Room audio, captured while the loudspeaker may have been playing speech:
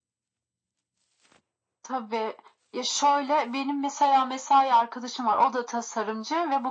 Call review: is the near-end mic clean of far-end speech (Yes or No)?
No